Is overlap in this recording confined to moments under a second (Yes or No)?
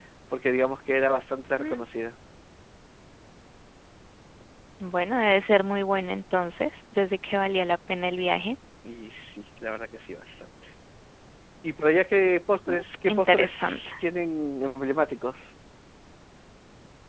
No